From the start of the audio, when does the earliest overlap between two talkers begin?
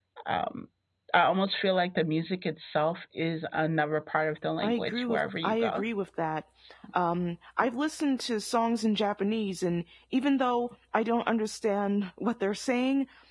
4.6 s

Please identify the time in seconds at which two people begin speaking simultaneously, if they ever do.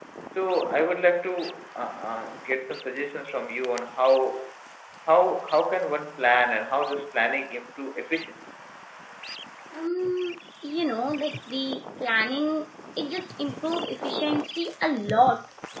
none

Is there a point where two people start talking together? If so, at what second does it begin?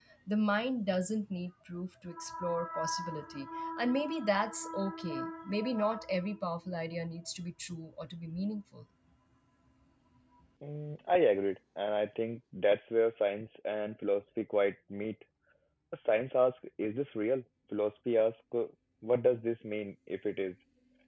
none

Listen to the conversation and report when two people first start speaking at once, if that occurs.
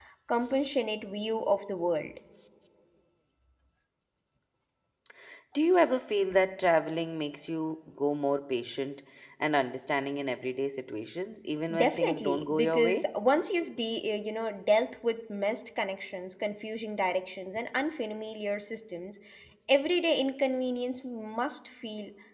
11.7 s

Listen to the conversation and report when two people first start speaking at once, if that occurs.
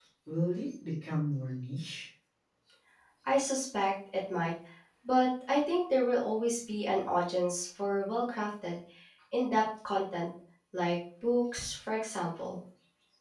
none

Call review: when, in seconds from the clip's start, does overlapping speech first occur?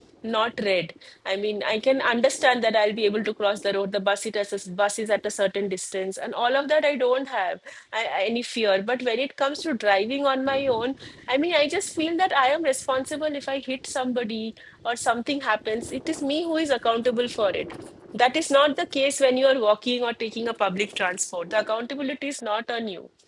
none

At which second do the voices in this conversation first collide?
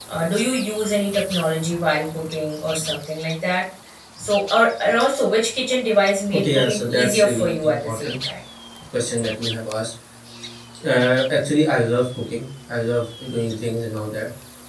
6.3 s

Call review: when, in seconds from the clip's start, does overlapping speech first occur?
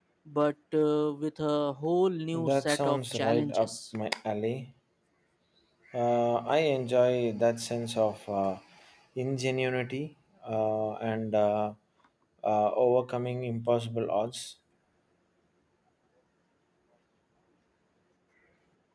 2.3 s

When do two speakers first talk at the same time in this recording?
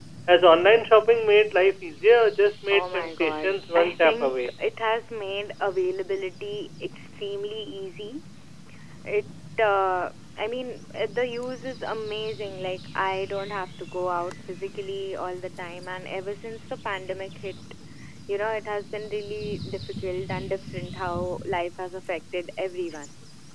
2.7 s

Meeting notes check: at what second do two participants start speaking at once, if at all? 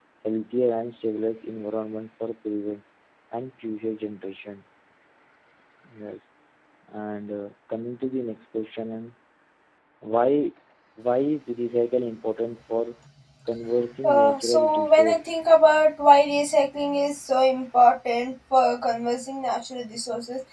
14.0 s

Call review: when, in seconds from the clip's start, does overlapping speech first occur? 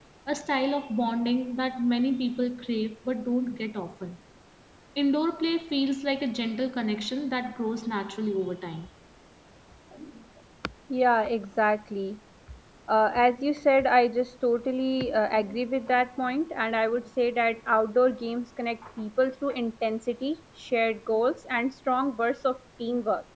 none

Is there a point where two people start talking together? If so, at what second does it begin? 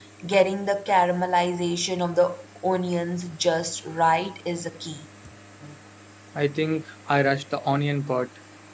none

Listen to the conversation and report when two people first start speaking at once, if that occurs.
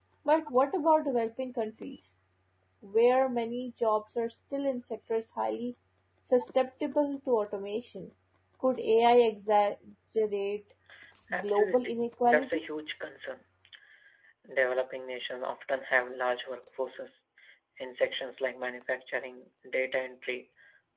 11.4 s

